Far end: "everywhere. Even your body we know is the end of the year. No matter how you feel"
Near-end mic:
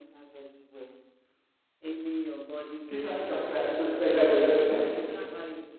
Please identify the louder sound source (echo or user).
user